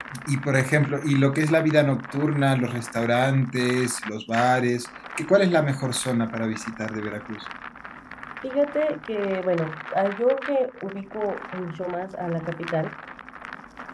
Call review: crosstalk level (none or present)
none